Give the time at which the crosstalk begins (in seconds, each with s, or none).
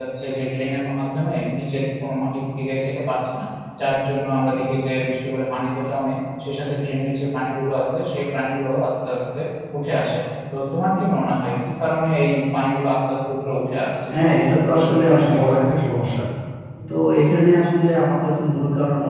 14.1 s